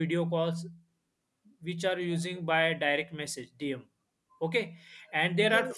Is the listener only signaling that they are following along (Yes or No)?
Yes